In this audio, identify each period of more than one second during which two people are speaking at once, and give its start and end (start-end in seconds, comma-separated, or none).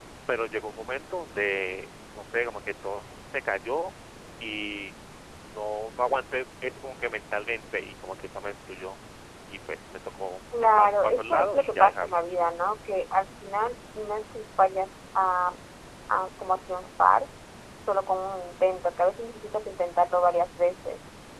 10.7-12.2